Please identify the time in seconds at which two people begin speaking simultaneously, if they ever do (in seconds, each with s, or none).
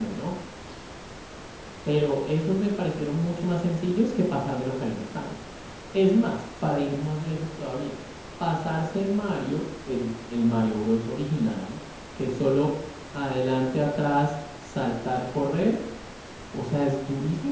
none